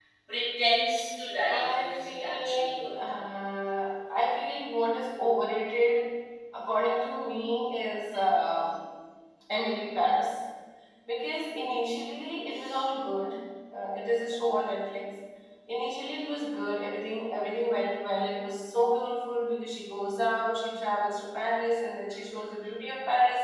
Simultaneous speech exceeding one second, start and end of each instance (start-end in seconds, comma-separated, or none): 1.5-2.9